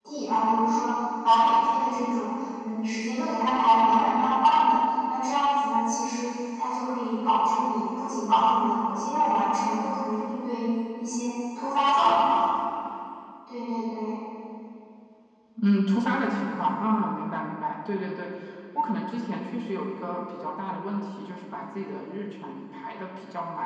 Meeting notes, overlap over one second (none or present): none